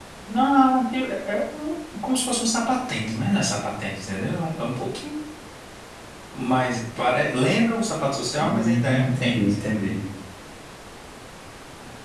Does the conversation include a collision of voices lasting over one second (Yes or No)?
Yes